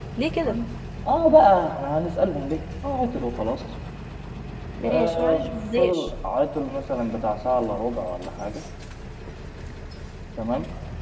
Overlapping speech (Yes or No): Yes